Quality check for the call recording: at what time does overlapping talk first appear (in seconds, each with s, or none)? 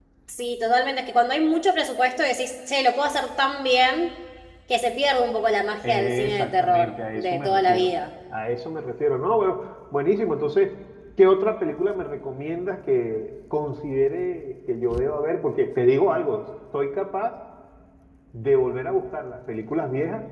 5.8 s